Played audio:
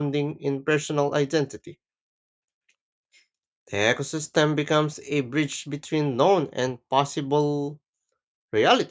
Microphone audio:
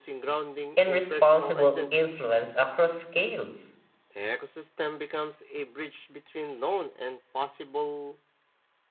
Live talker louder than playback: Yes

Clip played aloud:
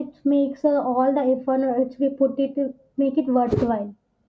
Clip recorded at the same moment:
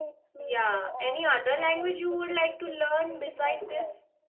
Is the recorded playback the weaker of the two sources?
Yes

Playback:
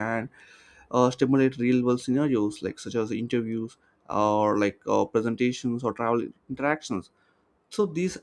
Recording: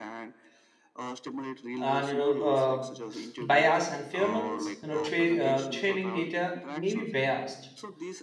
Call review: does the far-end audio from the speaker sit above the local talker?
No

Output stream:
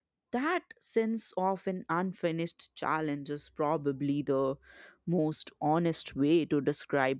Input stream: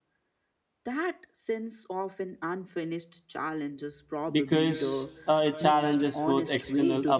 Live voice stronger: Yes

